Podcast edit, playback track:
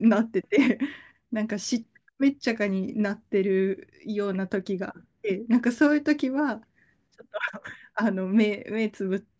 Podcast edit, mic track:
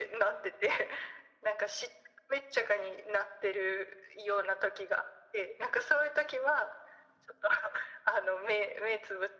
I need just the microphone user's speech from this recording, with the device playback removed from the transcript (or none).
none